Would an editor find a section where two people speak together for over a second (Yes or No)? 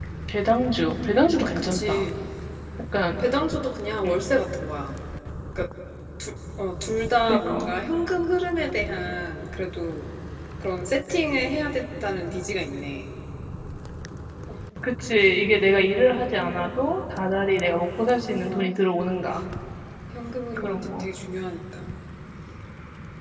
No